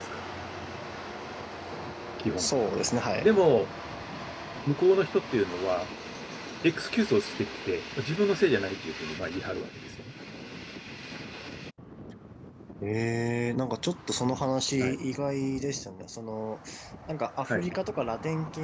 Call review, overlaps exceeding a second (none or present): none